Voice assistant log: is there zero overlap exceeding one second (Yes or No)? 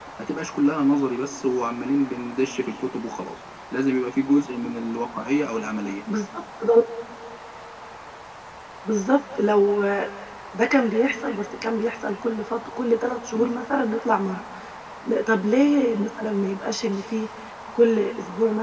Yes